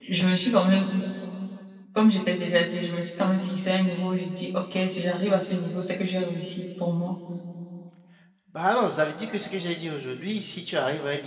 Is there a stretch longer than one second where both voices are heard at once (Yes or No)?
No